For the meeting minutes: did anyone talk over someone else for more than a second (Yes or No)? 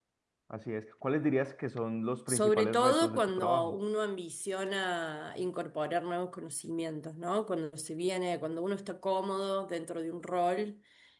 Yes